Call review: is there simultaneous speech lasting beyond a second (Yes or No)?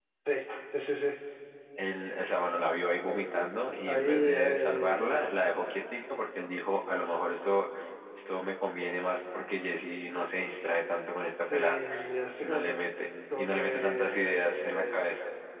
Yes